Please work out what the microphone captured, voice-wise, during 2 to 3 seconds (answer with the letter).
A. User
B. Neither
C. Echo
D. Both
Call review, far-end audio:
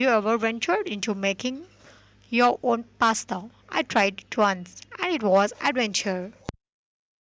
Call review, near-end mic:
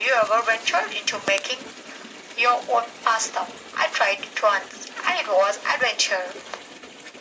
C